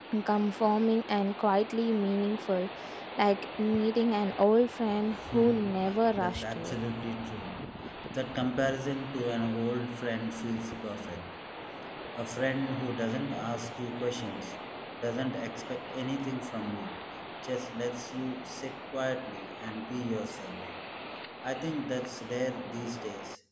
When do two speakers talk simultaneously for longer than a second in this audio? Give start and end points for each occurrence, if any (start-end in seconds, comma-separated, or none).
5.3-6.8